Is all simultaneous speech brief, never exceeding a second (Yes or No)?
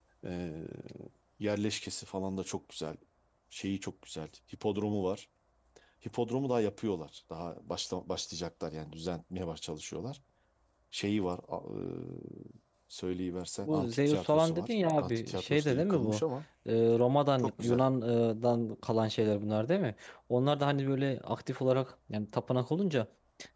No